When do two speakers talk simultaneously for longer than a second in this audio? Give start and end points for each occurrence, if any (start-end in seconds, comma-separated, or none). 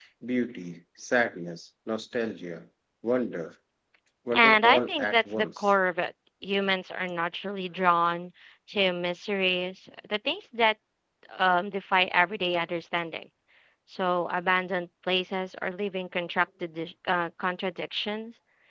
4.3-5.7